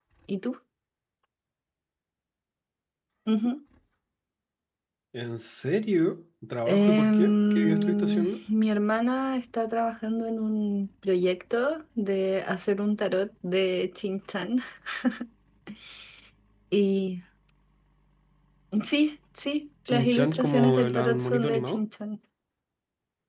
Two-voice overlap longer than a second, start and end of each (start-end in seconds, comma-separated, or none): 6.7-8.4, 19.9-21.8